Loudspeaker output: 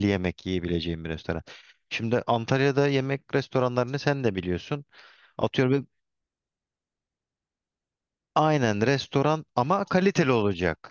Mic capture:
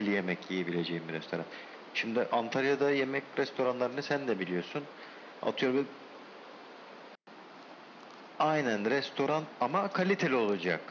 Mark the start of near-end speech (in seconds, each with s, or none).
none